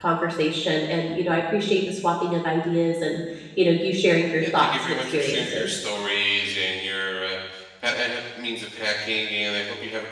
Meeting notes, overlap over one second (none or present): present